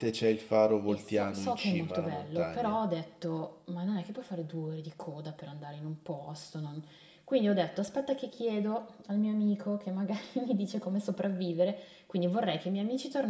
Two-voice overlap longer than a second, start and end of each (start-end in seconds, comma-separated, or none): 0.9-2.8